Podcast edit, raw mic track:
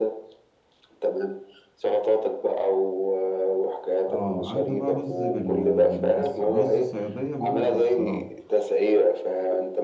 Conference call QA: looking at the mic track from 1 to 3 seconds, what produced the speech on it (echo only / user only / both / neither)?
echo only